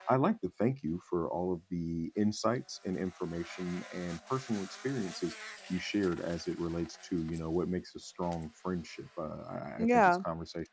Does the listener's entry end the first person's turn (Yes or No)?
No